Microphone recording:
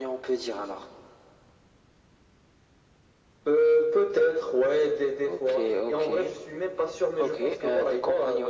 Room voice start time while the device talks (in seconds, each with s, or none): none